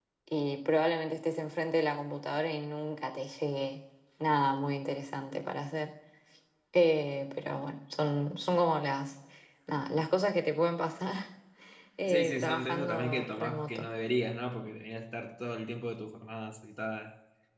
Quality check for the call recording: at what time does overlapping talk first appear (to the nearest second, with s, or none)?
12 s